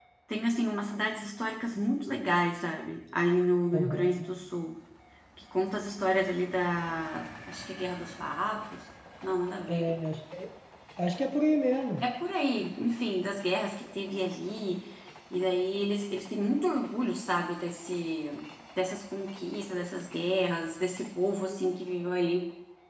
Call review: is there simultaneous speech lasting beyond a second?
No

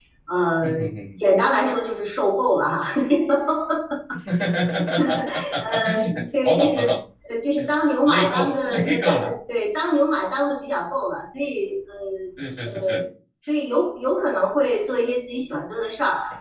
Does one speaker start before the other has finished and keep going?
Yes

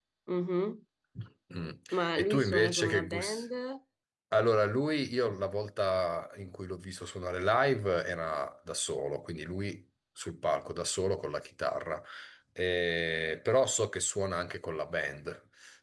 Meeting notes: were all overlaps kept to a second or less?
No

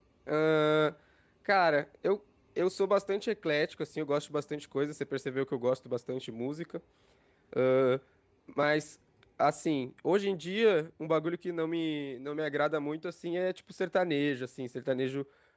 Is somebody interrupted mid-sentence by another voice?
No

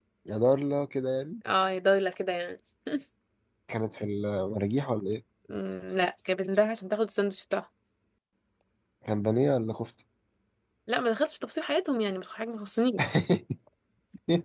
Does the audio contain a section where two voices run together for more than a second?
No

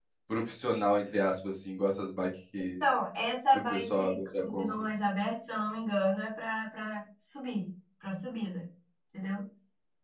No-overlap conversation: No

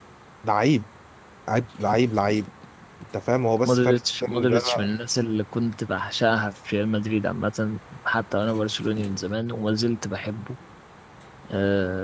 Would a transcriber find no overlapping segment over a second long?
No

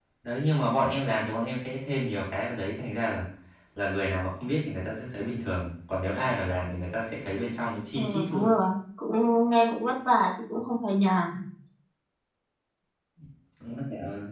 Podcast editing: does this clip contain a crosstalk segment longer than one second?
No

